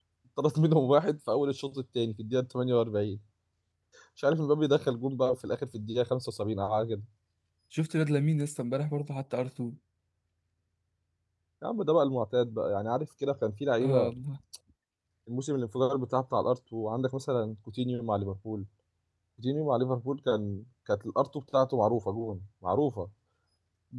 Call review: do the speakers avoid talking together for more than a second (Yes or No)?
Yes